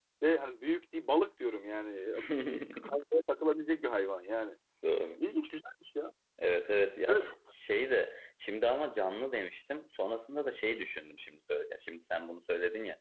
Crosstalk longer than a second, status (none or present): none